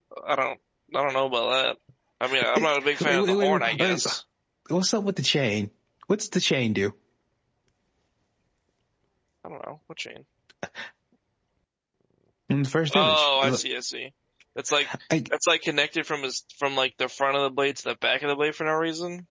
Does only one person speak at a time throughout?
No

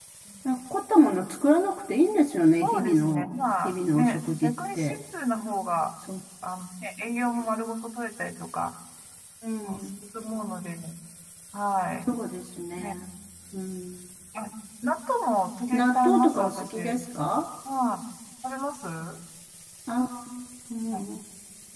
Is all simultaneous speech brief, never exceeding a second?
No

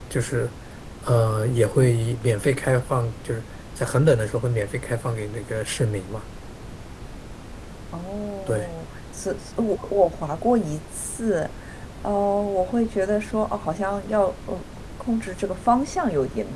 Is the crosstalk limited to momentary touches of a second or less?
Yes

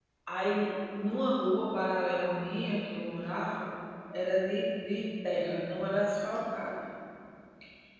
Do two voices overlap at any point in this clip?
No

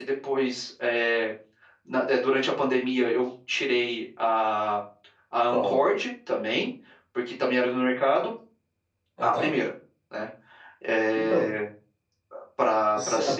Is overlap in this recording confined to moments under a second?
Yes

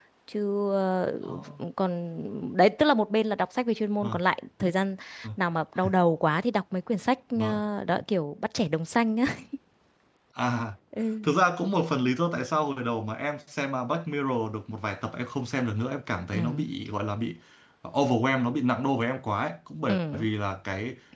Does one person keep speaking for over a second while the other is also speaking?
No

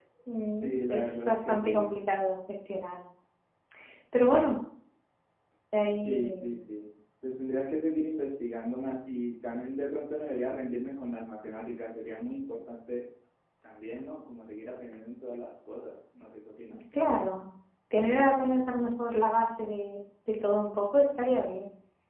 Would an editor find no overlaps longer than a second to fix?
No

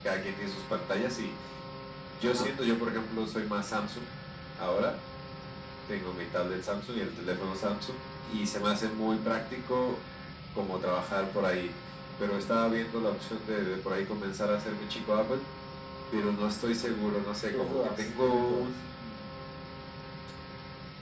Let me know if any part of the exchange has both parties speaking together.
Yes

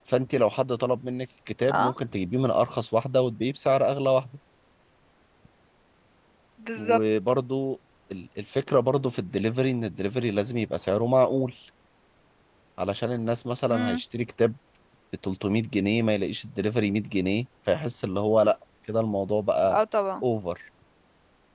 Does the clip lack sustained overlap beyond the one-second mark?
Yes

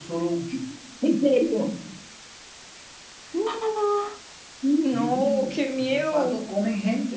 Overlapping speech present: Yes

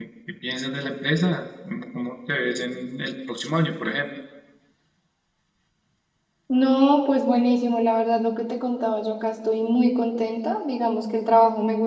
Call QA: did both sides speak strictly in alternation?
Yes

